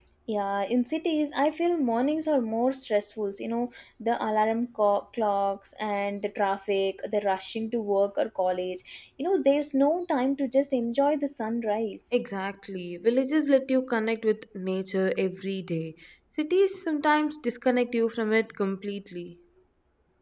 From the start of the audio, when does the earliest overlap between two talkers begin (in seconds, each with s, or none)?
none